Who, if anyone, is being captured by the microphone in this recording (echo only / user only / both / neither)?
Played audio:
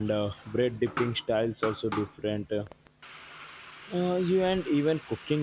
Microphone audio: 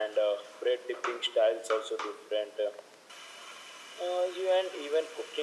echo only